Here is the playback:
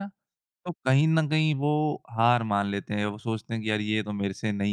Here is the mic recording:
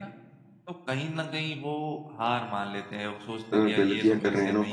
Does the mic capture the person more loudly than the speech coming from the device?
Yes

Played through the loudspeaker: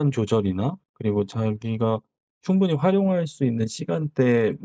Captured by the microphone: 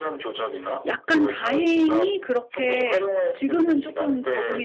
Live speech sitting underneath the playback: No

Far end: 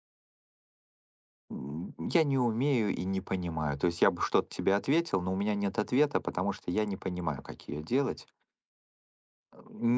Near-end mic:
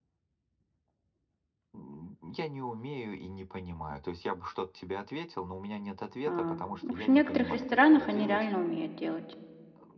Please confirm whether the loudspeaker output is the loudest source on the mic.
No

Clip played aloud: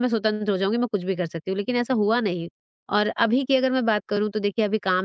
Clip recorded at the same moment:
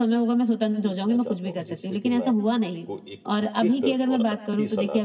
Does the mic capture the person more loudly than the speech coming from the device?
No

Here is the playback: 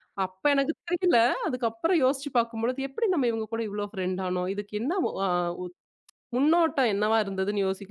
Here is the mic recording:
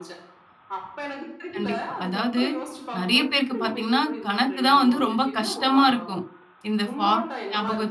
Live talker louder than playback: Yes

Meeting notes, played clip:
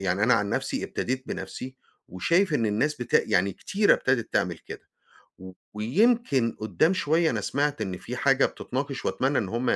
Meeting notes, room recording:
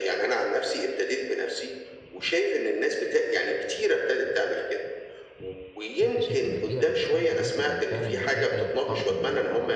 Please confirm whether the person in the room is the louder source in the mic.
No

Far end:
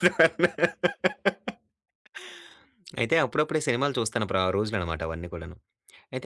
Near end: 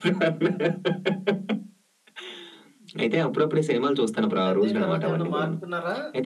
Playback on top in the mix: Yes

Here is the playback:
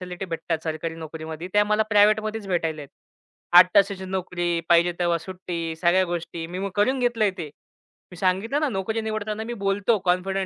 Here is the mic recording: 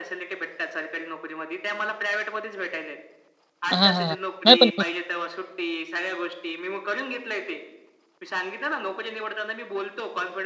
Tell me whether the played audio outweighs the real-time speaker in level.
No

